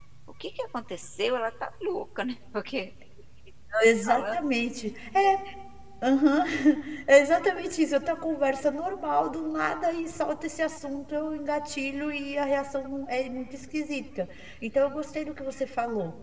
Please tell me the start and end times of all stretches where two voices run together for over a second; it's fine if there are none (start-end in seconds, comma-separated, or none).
none